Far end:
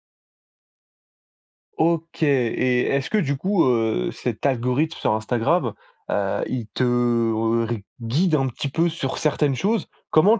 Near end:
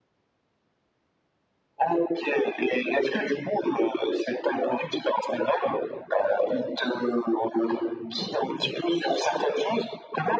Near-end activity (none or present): none